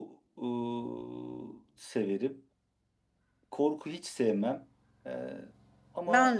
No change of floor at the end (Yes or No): Yes